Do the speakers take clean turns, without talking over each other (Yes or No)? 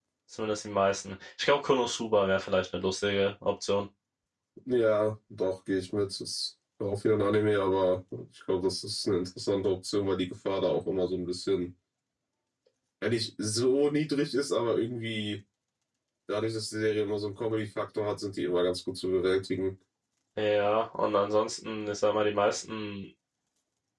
Yes